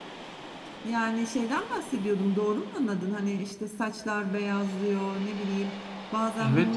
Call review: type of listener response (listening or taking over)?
listening